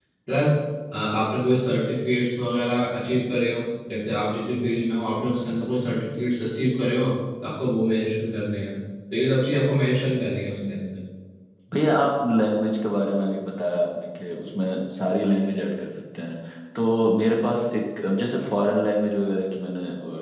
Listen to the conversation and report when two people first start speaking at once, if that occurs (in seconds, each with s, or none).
none